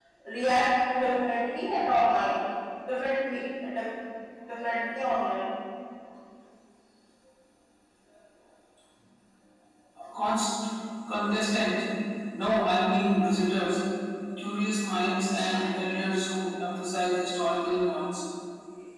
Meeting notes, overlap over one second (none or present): none